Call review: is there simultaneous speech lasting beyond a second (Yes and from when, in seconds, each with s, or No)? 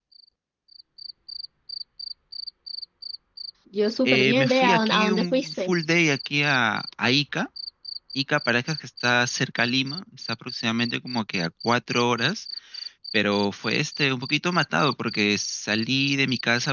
Yes, from 4.0 s